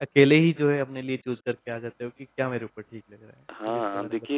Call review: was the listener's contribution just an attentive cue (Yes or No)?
No